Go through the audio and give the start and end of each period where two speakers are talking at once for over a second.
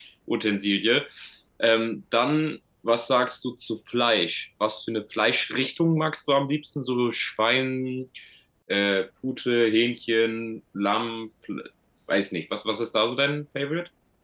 none

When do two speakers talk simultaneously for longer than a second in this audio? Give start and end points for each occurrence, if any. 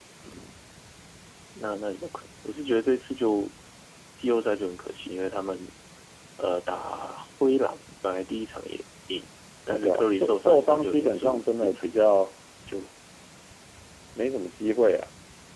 9.7-11.9

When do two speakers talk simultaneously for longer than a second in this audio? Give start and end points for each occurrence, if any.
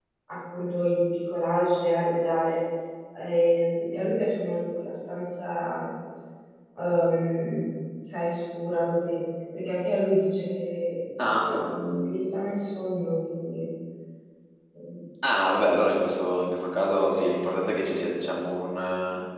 none

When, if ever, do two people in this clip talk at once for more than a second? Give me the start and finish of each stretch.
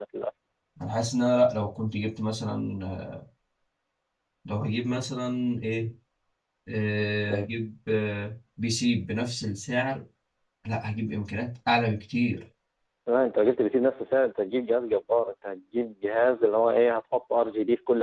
none

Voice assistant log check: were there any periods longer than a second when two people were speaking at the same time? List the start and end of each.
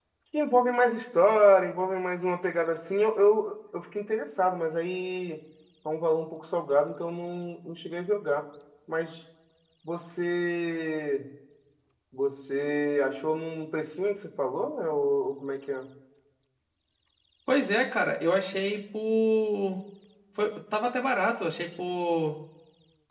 none

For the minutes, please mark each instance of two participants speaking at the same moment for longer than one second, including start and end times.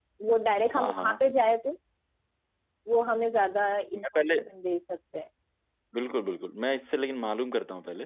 none

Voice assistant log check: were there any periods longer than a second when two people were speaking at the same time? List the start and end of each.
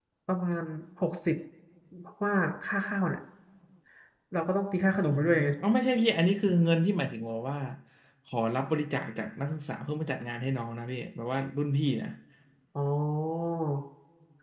none

